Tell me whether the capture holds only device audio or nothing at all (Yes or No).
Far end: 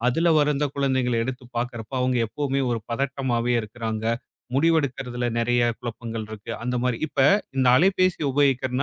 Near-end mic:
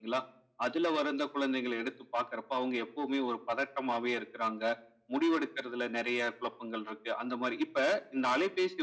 Yes